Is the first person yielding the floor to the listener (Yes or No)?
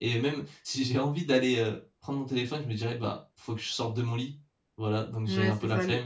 Yes